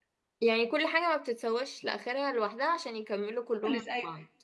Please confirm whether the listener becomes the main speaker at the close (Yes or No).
Yes